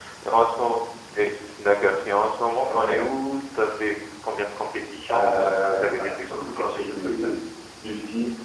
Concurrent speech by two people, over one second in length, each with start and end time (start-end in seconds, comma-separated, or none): 5.1-7.3